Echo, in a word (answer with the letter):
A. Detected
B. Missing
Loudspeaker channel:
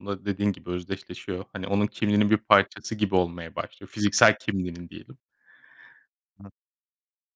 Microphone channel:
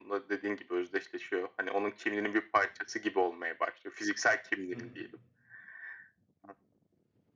A